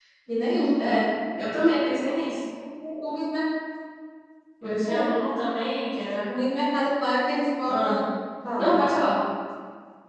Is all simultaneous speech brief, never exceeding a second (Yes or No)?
Yes